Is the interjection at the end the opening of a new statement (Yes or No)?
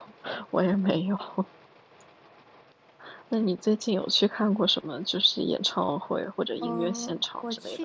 Yes